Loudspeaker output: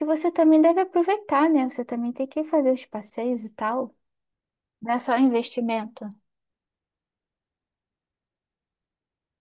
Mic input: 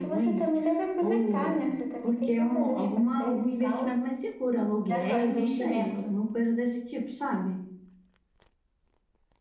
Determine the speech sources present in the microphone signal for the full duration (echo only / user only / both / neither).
both